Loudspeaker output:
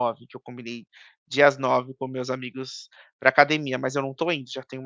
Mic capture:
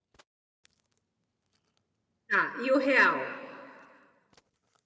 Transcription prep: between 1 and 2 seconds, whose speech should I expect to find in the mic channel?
neither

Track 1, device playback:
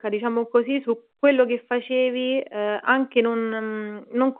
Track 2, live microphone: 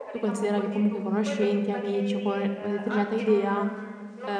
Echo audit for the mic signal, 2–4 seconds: both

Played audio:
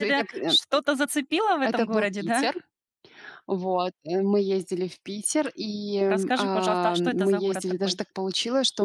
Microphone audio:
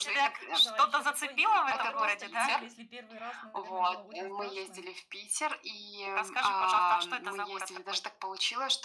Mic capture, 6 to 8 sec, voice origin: echo only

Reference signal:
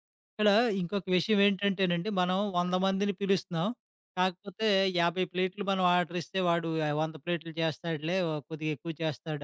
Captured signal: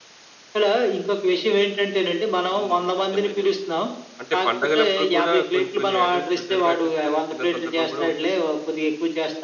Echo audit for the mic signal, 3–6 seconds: both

